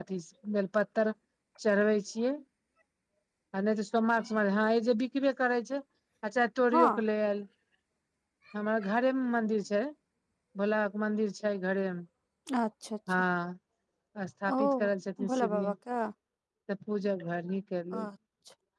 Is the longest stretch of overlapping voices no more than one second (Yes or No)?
Yes